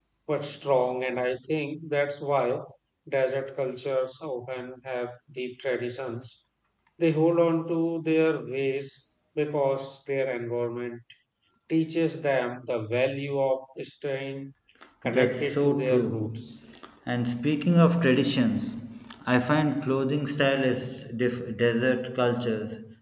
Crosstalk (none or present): present